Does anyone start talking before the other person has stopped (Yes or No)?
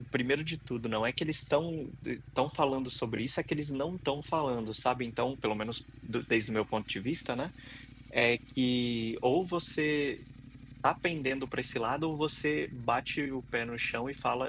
No